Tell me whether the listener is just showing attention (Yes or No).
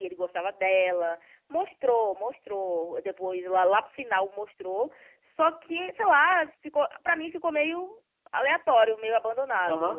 No